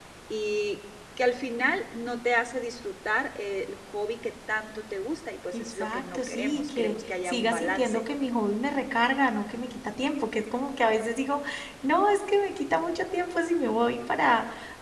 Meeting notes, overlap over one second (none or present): present